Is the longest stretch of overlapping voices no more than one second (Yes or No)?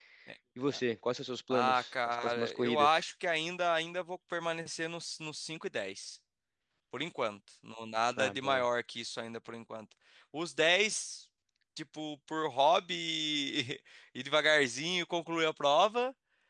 No